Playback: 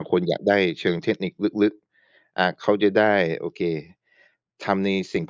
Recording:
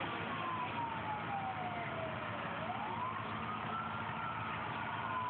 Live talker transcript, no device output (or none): none